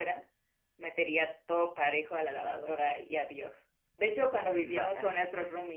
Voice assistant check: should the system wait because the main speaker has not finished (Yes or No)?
Yes